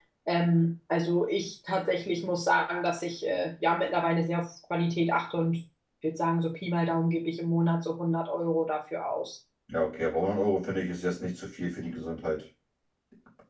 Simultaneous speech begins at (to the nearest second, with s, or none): none